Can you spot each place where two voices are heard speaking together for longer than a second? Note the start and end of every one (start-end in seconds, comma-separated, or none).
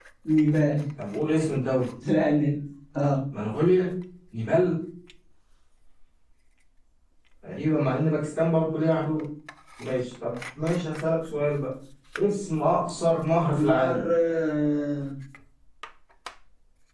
none